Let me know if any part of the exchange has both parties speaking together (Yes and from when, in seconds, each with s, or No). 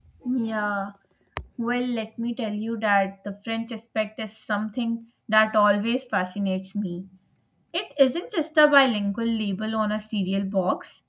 No